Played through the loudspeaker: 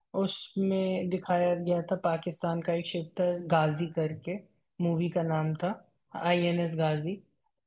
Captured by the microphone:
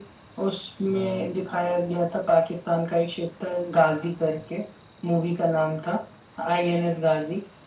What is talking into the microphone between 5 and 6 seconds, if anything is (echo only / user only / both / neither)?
echo only